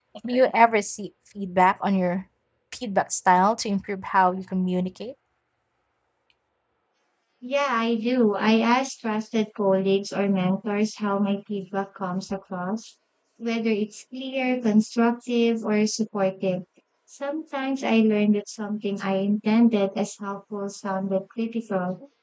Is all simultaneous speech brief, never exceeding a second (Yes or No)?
Yes